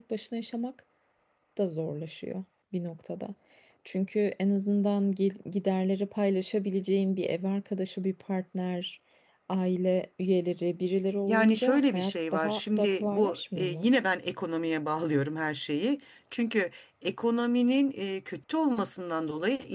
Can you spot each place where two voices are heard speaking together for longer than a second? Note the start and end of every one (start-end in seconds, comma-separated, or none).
11.3-13.9